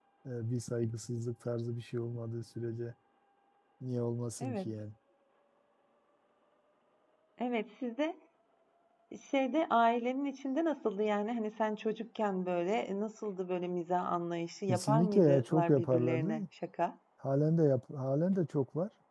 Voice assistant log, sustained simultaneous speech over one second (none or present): present